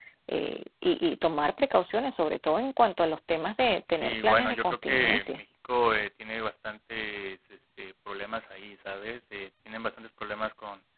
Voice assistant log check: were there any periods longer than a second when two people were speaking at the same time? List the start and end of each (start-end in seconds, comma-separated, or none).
3.9-5.2